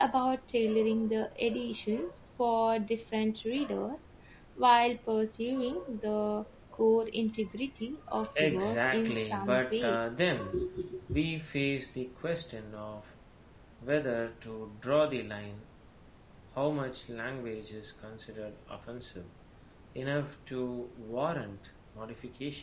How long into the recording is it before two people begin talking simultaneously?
8.3 s

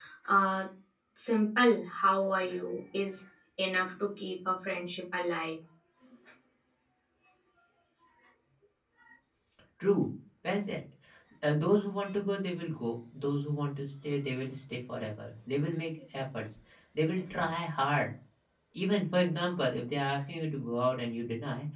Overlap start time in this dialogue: none

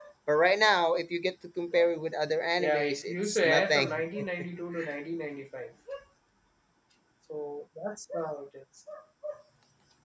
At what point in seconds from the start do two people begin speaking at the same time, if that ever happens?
2.6 s

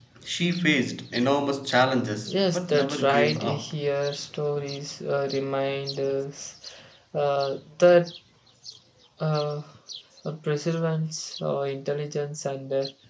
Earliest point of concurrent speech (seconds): 2.2 s

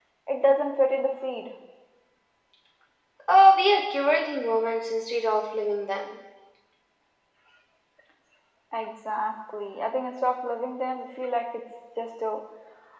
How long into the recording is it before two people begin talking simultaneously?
none

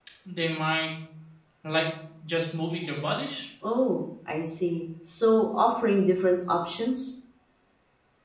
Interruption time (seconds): none

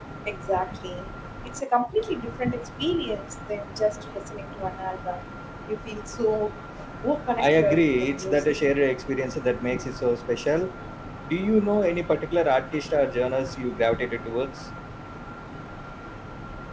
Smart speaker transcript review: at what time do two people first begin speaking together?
7.4 s

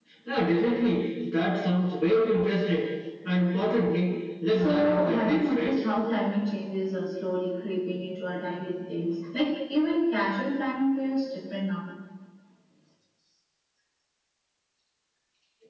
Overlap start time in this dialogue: 4.5 s

